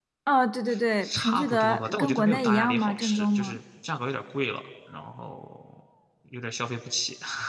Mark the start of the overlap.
1.0 s

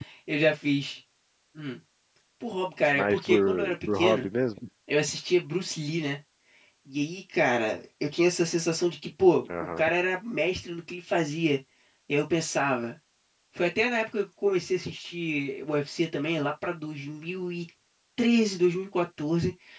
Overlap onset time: 3.0 s

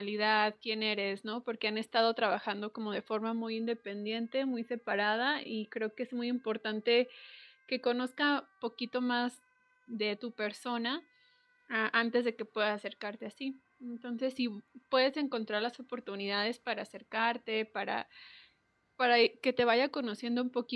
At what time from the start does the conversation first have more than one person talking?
none

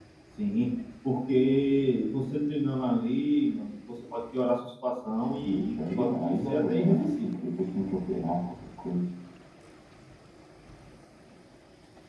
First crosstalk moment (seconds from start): 5.4 s

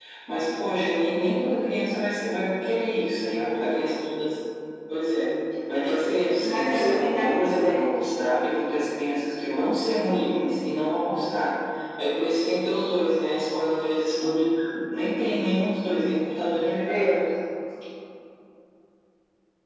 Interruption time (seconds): 6.5 s

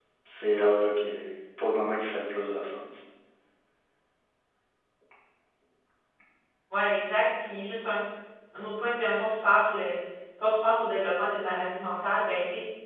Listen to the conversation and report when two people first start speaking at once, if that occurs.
none

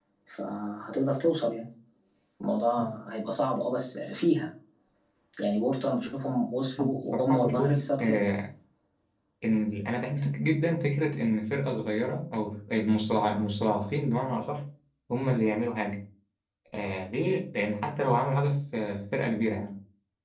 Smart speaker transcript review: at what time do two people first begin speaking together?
6.8 s

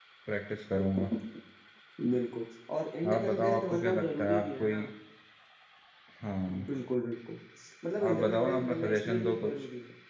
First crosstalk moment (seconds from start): 3.1 s

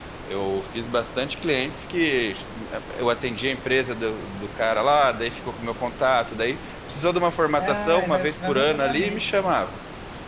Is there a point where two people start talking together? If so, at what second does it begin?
7.6 s

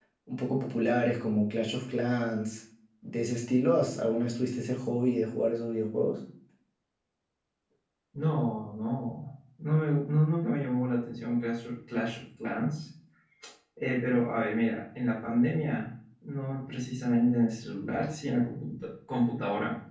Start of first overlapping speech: none

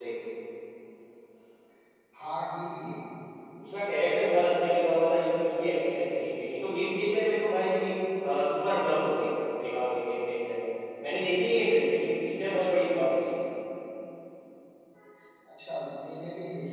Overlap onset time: none

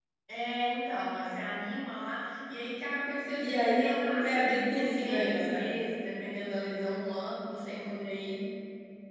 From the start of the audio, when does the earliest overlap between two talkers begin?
3.3 s

